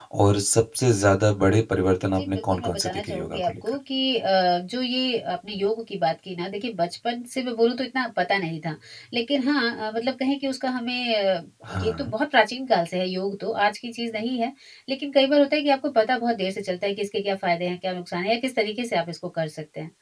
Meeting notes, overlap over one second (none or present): present